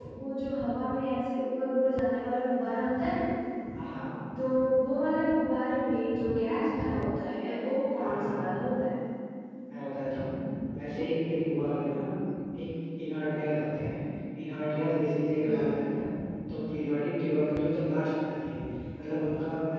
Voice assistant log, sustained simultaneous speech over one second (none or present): none